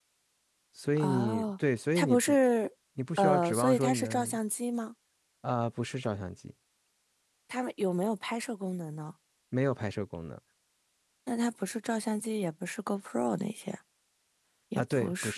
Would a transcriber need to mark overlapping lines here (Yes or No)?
Yes